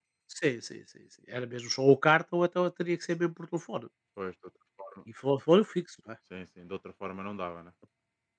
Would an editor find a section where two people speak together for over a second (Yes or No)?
No